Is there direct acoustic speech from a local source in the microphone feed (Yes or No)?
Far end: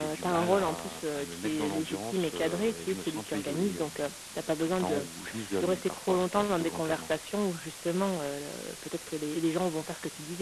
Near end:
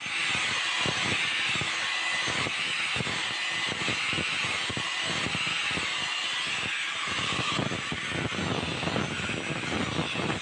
No